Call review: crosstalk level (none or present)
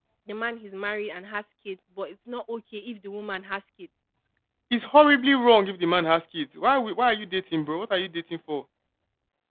none